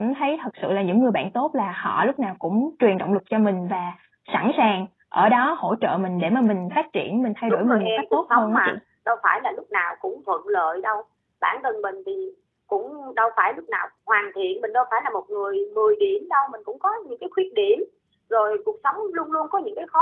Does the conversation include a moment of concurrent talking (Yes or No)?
Yes